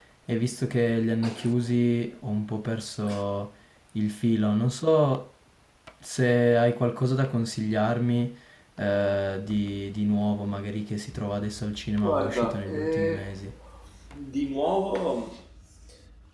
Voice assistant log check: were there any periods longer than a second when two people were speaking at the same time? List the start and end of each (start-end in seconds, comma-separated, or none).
12.0-13.4